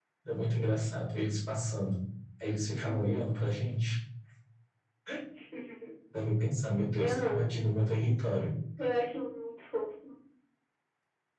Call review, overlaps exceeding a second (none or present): none